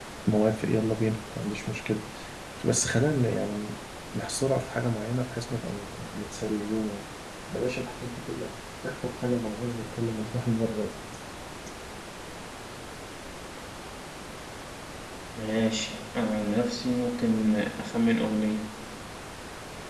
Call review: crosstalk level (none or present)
none